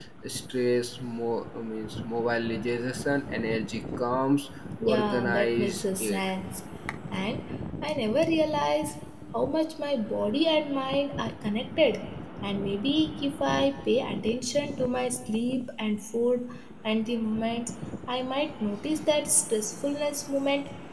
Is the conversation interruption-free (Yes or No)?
No